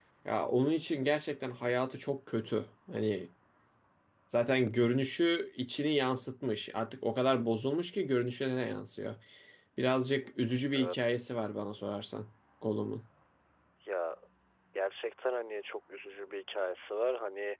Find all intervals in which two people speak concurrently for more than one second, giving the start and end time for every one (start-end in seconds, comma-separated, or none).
none